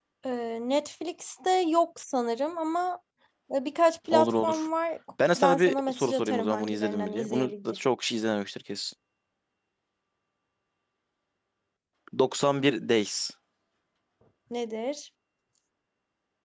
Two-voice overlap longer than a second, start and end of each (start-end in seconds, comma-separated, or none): 5.4-7.5